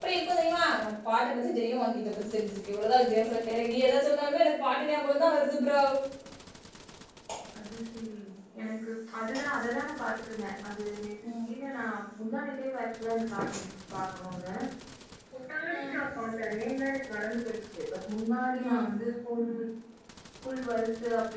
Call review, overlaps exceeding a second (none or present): none